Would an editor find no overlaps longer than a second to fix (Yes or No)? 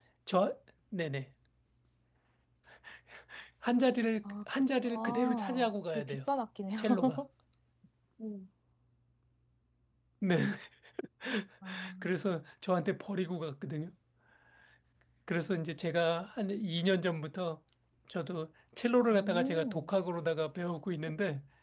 No